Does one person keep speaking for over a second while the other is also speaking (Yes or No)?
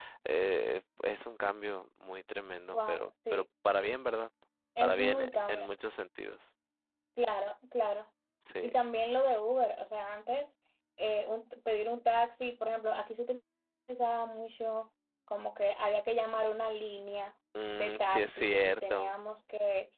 Yes